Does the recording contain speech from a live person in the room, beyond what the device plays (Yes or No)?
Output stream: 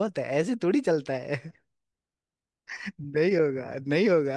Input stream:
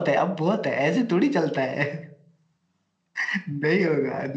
No